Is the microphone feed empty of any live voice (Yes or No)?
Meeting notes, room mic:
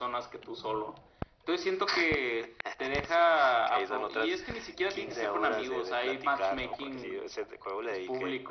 Yes